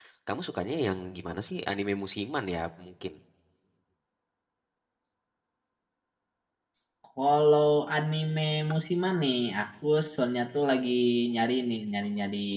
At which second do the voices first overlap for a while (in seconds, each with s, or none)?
none